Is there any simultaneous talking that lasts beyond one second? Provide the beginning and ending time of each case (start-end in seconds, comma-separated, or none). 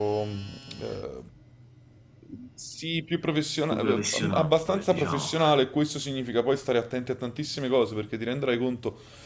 3.7-5.3